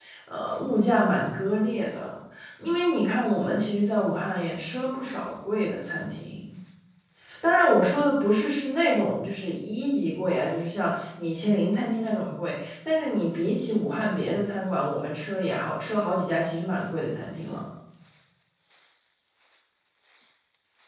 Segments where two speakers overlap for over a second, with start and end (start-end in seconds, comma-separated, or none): none